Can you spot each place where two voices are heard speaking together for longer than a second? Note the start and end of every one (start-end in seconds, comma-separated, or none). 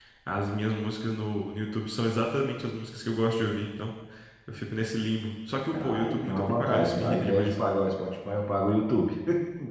5.7-7.6